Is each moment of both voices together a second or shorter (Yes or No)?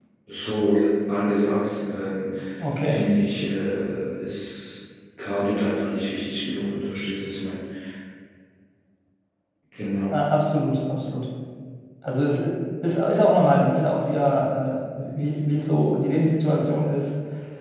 Yes